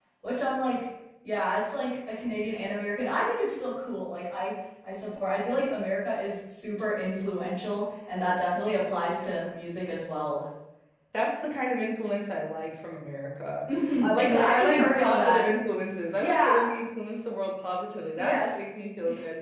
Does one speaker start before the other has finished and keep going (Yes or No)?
Yes